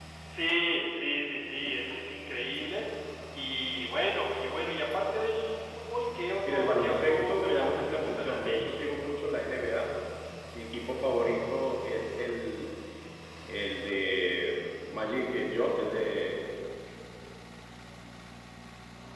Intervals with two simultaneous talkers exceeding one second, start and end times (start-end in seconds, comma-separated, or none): 6.5-9.1